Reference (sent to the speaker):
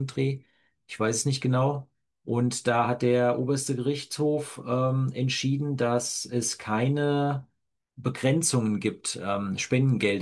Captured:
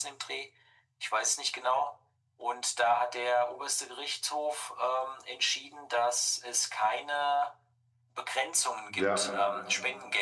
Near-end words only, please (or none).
Ja,